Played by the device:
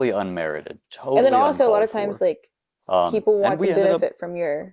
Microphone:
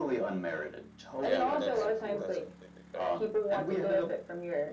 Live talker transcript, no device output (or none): yeah, that's that's completely fair.